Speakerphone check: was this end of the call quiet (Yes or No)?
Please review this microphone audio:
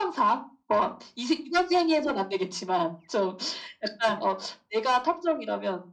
Yes